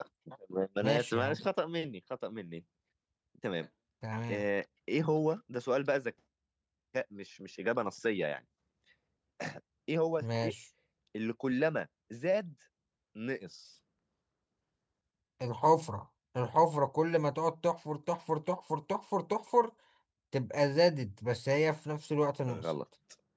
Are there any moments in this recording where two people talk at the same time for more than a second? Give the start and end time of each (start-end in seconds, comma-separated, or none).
none